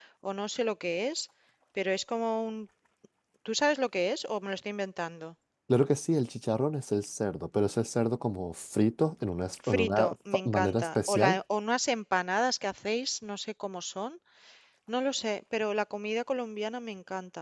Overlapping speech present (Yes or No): Yes